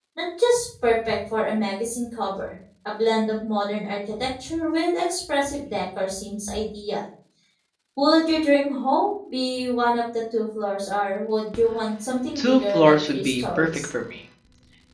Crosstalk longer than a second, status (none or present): present